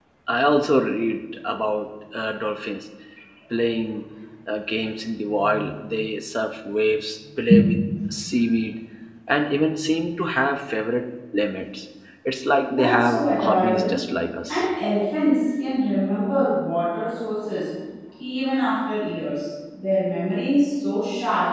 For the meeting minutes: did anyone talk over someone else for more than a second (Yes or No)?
Yes